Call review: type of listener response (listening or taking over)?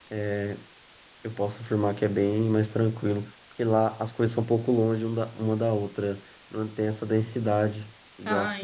taking over